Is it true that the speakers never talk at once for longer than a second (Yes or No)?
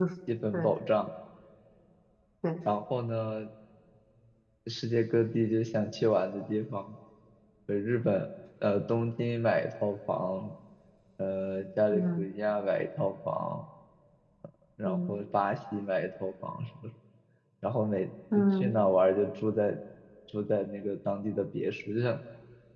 Yes